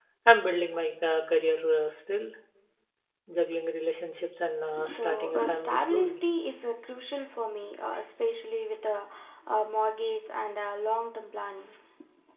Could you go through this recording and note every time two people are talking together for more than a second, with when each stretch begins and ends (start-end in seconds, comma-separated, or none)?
4.7-6.2